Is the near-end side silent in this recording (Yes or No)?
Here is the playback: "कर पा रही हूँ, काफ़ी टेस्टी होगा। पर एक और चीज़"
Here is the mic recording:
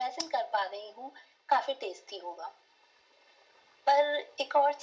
Yes